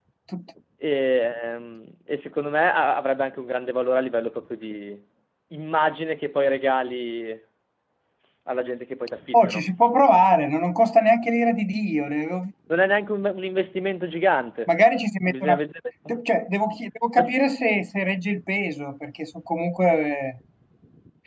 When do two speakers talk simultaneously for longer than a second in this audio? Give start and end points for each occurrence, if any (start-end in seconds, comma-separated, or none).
none